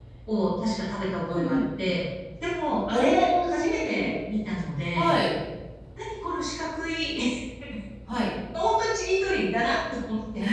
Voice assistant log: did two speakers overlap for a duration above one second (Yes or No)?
Yes